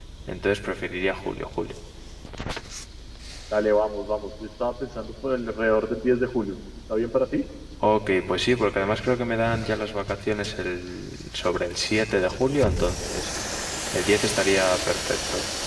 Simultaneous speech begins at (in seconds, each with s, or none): none